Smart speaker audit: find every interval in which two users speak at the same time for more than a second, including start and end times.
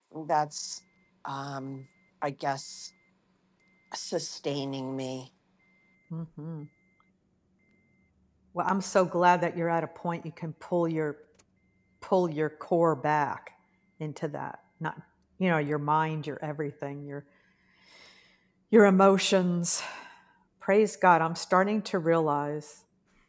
none

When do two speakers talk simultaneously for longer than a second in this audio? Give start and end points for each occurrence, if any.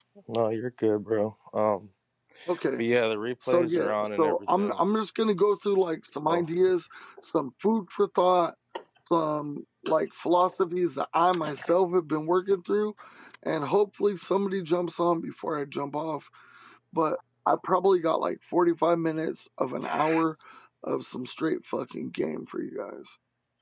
3.5-4.8

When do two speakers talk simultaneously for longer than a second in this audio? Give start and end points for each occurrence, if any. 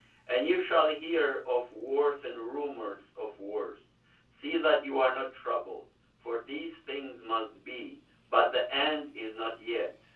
none

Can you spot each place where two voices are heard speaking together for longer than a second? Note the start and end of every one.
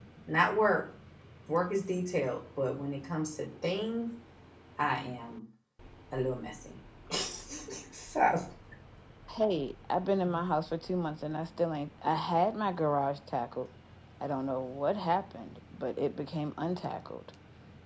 none

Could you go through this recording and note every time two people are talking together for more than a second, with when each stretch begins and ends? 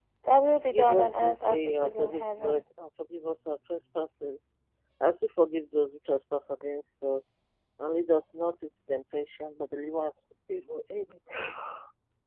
0.7-2.6

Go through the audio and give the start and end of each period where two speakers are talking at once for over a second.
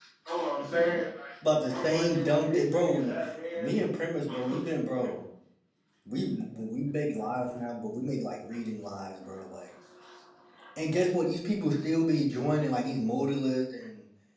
1.7-3.1

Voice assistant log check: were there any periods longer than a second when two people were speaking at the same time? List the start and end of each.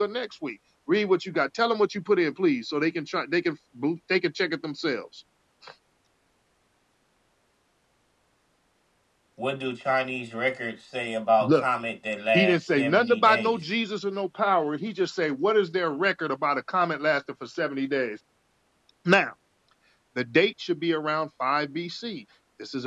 12.3-13.6

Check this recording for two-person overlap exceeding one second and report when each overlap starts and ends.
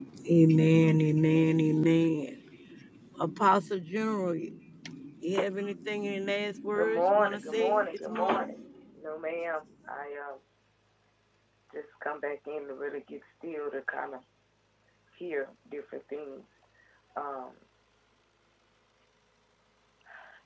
6.7-8.5

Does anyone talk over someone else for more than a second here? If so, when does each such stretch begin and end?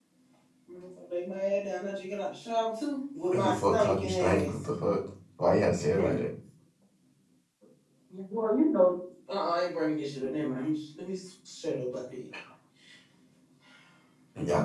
3.3-4.5

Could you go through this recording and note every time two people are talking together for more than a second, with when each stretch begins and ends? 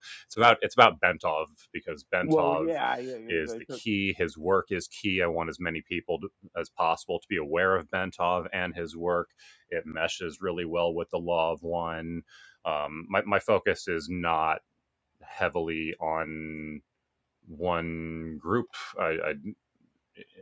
none

